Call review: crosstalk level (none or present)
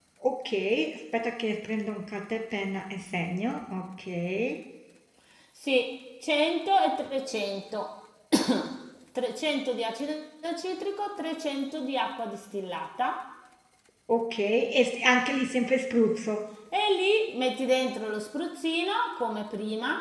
none